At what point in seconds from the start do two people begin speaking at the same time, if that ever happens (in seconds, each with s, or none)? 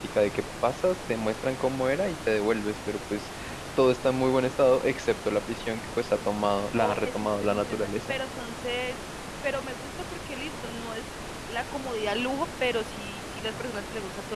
6.8 s